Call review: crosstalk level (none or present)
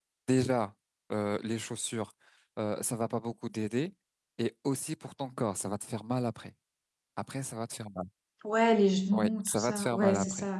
present